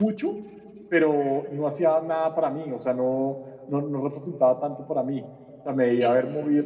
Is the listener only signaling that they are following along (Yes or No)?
Yes